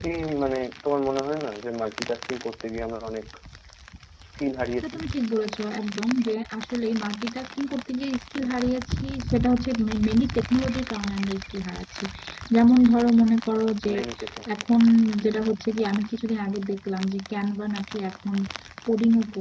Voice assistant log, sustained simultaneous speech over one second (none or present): none